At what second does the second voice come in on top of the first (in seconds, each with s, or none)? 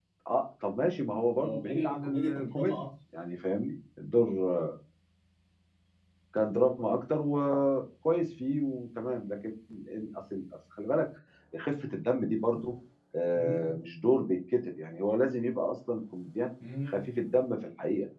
1.4 s